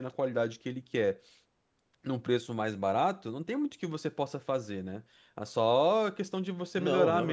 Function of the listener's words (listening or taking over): listening